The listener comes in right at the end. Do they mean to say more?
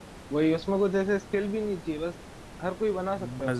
Yes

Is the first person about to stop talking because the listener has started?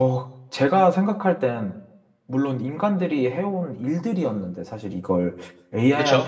No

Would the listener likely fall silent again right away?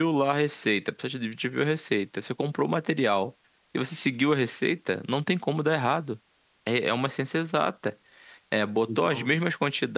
Yes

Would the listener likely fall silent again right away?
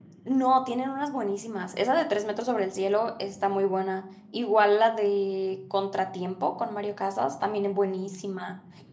Yes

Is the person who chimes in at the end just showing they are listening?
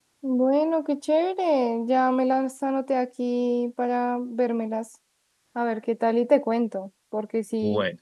Yes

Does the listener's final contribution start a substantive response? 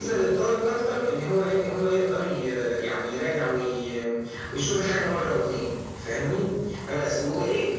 No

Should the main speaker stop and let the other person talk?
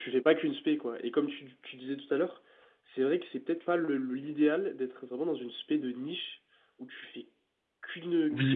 Yes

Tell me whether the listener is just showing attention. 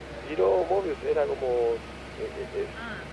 No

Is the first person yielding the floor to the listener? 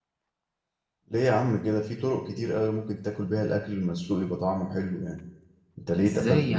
Yes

